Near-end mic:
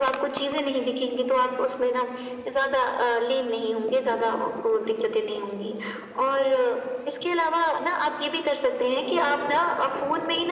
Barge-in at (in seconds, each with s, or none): none